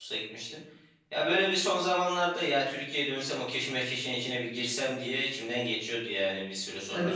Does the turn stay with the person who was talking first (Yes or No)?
No